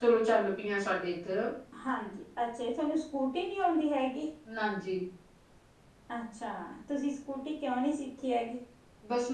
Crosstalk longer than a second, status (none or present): none